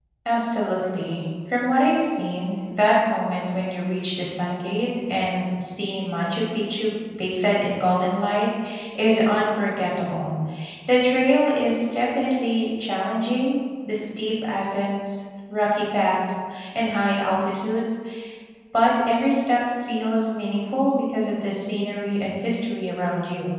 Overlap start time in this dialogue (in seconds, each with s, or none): none